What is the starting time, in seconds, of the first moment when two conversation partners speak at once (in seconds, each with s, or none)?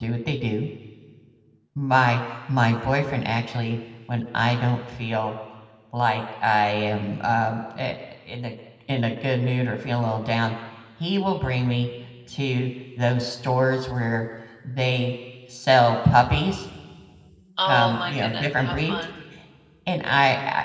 17.7 s